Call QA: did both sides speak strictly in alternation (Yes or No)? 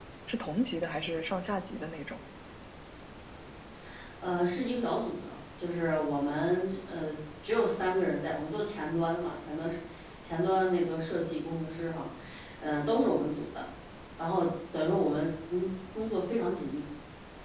Yes